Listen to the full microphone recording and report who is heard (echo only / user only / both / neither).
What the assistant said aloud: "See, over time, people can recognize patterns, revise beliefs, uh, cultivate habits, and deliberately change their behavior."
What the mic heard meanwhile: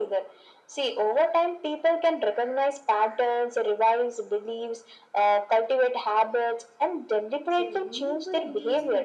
both